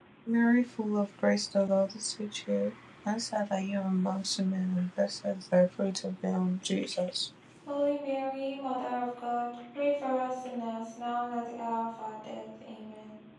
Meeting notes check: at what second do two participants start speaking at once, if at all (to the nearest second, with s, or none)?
none